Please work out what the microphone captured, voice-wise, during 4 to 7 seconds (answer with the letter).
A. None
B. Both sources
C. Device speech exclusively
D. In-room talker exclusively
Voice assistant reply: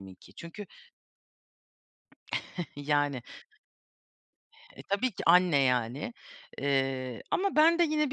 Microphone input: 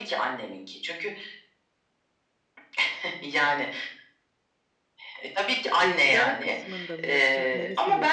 B